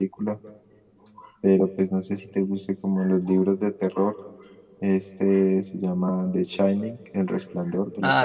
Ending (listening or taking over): taking over